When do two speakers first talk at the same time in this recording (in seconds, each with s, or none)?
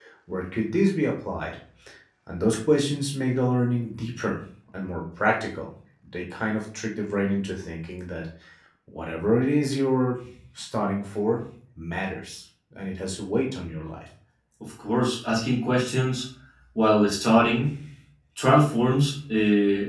none